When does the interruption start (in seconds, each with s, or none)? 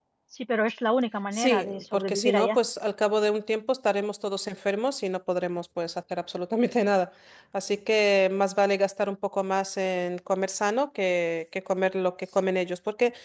1.3 s